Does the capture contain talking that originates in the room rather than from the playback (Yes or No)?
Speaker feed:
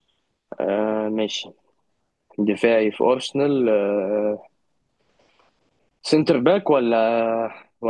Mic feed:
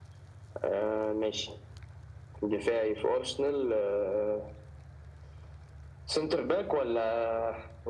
No